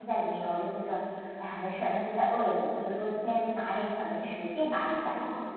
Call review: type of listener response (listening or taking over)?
listening